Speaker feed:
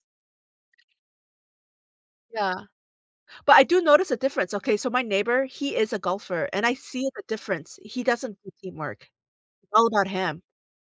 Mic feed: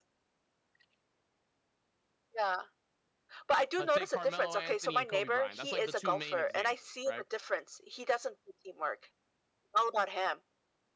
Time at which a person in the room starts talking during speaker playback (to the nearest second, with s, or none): 4 s